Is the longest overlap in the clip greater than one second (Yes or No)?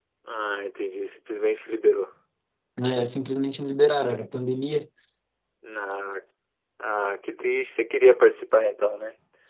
No